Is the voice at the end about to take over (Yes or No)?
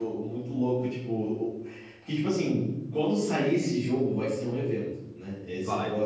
No